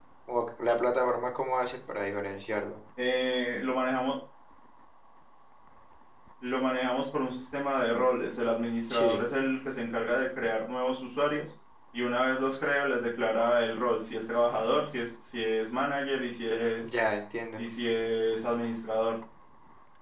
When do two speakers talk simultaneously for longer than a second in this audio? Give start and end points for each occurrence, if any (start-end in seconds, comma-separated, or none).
none